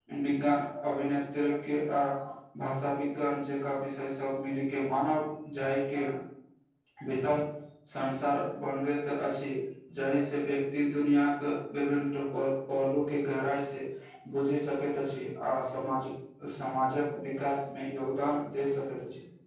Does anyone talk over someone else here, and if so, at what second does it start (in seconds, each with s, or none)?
none